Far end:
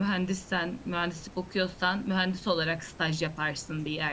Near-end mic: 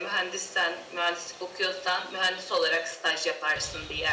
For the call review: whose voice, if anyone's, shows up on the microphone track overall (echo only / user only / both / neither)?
echo only